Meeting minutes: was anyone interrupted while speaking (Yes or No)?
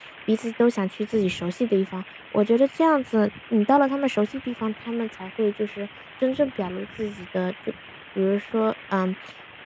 No